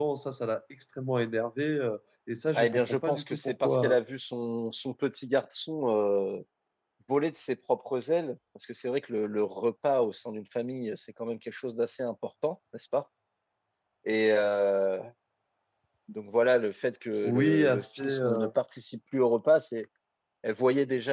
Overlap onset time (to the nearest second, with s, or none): 3 s